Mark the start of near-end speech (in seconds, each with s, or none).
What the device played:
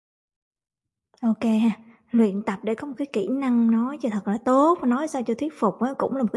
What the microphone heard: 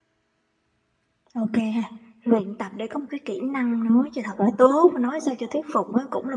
none